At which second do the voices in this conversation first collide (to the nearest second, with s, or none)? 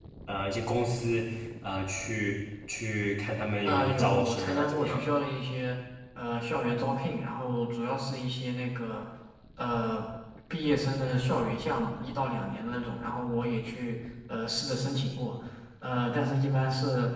4 s